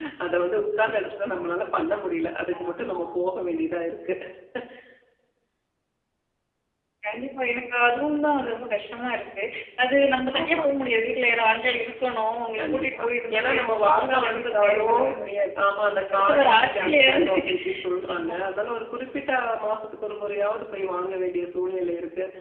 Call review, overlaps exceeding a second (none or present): present